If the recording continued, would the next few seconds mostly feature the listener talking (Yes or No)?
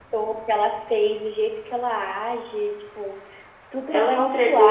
Yes